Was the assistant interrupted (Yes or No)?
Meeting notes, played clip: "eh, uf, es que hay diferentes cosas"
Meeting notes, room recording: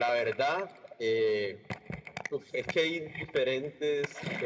No